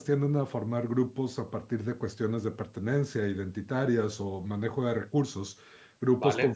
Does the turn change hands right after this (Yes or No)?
No